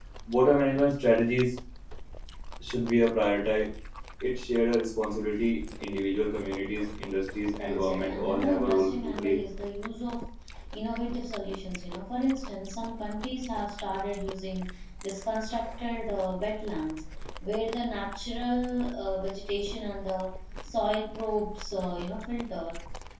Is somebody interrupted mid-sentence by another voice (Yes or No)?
Yes